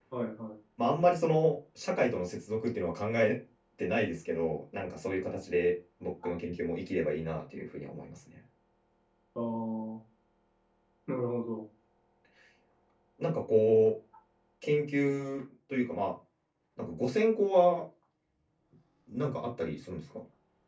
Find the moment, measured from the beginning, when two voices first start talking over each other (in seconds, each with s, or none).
none